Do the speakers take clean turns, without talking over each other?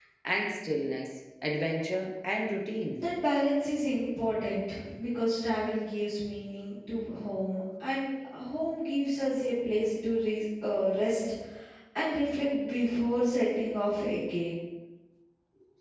Yes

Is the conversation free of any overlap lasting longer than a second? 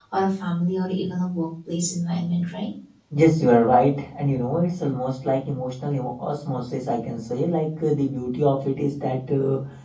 Yes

